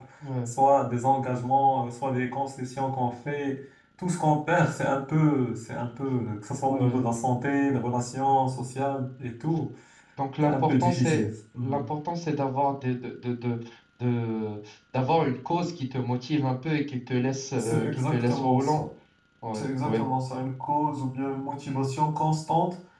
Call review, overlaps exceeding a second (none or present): present